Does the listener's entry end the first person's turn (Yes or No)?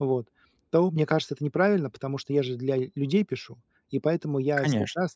No